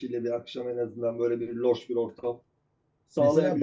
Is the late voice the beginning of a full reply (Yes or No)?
Yes